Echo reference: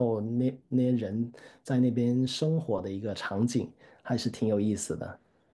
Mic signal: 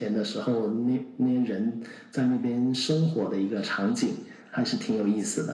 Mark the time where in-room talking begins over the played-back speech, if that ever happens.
none

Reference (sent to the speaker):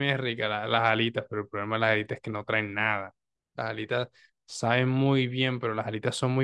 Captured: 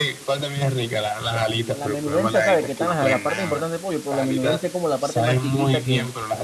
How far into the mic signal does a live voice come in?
1.3 s

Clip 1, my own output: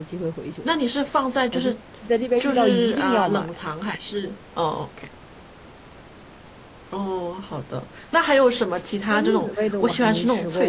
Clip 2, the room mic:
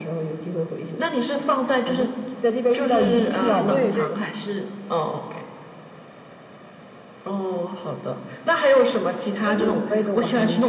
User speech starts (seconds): 3.7 s

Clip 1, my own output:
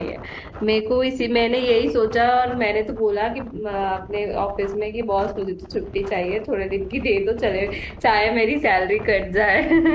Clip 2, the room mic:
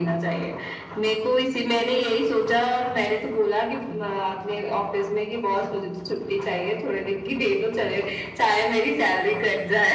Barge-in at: none

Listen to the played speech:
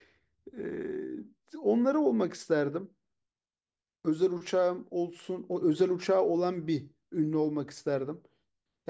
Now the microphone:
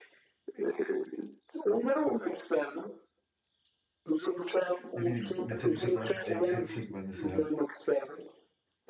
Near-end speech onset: 4.9 s

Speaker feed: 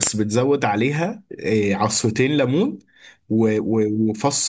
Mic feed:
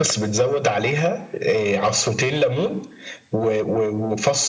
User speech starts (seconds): none

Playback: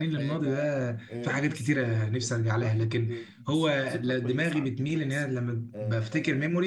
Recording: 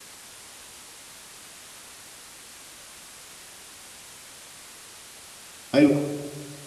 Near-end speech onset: 5.7 s

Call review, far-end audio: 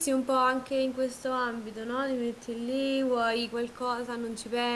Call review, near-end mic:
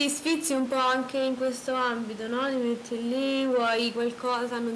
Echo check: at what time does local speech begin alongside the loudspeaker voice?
none

